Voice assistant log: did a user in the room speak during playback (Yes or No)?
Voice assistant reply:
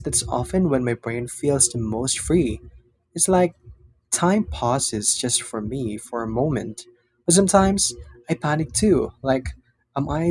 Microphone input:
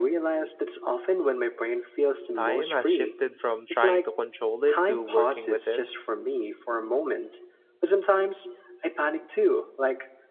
Yes